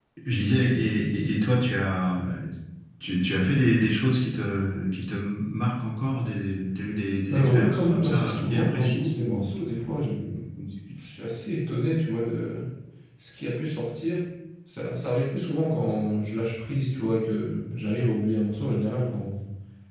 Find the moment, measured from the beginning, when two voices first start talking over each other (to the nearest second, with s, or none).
7 s